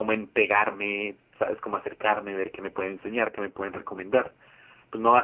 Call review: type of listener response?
listening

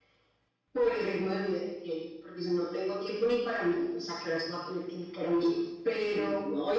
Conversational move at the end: taking over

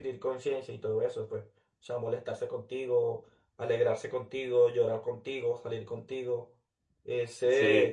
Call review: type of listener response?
taking over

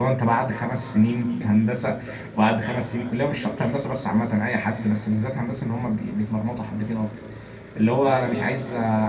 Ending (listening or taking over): listening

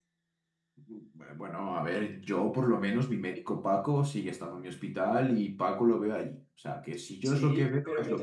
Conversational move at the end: taking over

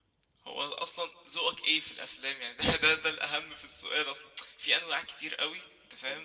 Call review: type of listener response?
listening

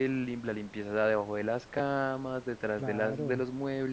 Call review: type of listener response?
listening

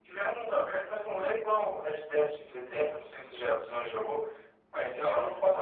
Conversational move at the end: listening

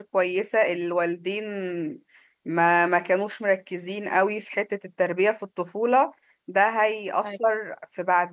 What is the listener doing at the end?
listening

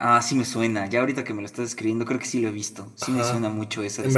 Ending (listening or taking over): taking over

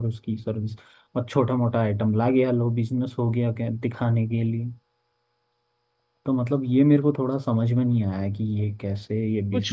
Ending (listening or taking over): taking over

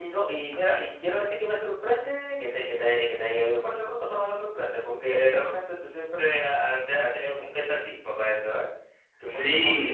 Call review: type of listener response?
taking over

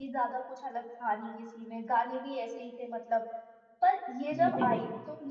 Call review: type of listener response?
listening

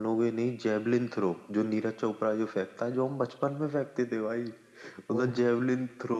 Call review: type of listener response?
listening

